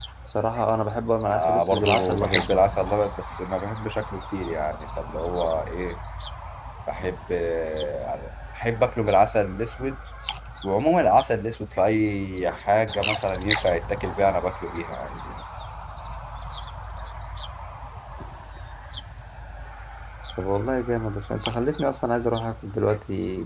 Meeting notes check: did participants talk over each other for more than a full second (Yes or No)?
Yes